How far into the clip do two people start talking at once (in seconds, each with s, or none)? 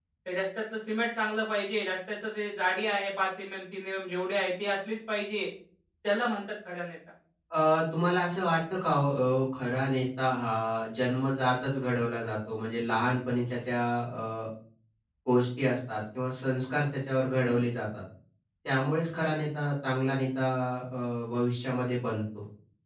none